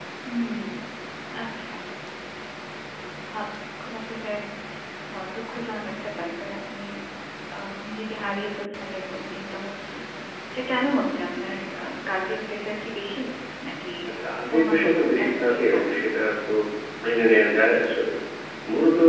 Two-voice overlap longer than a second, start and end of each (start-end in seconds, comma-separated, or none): 14.6-16.0